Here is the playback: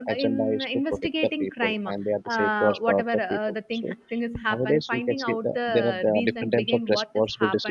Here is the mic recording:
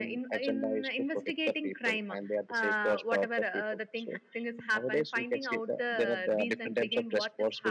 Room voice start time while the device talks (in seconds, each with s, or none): none